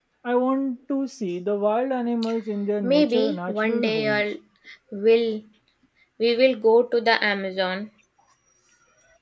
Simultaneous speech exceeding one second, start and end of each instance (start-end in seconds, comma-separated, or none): 2.8-4.2